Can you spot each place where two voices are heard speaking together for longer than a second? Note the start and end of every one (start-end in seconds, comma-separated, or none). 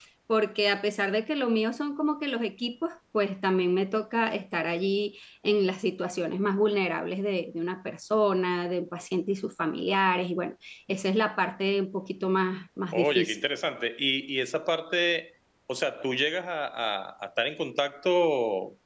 none